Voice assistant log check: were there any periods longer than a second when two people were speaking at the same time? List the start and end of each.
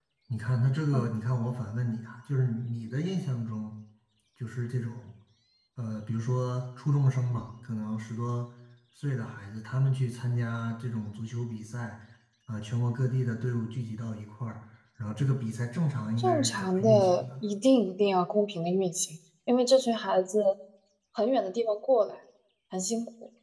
16.2-17.4

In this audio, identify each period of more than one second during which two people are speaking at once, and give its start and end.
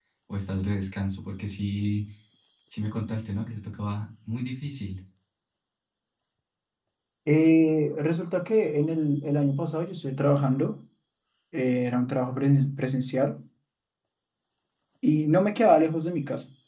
none

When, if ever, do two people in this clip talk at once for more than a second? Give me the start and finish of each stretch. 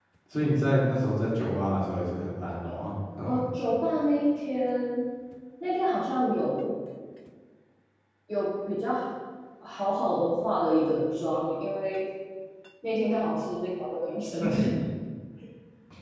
none

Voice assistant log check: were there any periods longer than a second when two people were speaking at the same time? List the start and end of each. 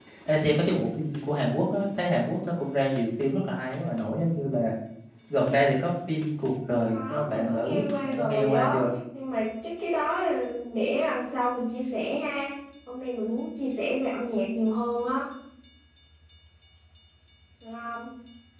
6.9-8.8

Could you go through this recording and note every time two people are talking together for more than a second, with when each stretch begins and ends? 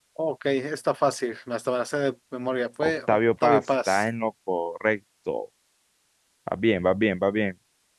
2.8-4.0

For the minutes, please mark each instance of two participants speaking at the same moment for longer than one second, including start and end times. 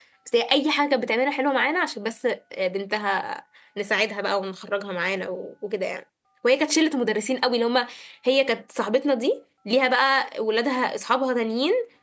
none

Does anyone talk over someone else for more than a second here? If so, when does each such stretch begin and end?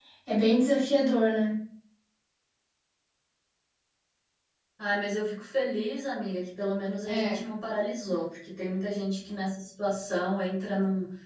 none

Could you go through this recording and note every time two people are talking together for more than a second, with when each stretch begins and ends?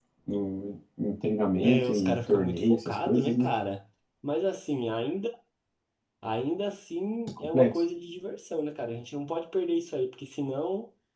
1.6-3.5

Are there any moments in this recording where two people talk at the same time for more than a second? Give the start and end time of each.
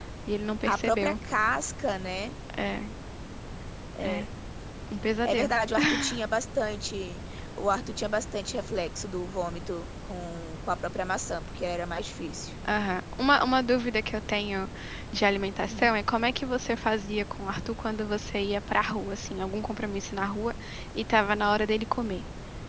none

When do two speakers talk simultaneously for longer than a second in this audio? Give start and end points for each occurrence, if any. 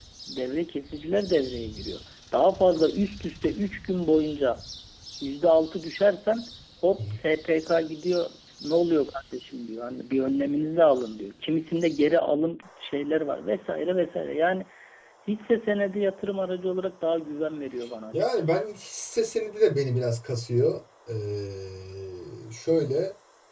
none

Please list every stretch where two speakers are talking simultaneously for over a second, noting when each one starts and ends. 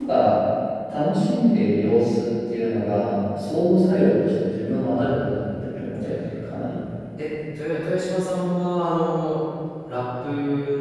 none

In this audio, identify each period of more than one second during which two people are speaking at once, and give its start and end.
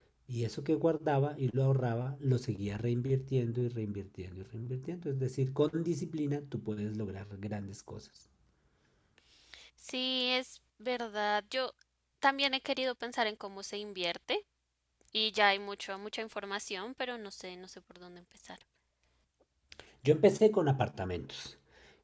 none

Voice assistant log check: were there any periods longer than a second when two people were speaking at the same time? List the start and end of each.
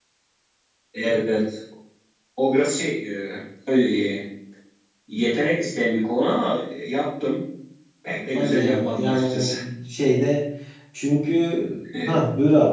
8.3-9.6

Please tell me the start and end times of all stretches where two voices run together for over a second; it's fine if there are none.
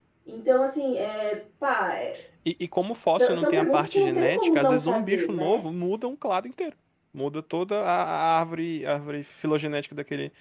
3.2-5.6

